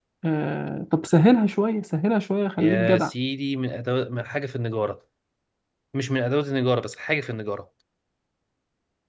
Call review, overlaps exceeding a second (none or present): none